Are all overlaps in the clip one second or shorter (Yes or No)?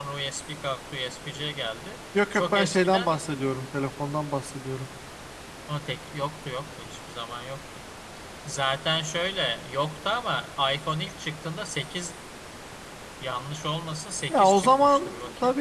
No